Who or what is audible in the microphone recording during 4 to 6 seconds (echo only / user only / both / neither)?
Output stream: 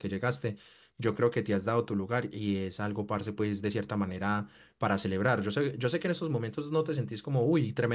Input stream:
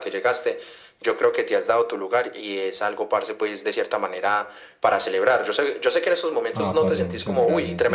echo only